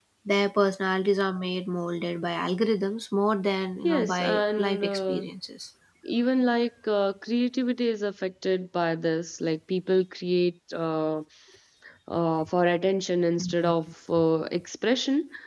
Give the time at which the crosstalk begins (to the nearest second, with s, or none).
4 s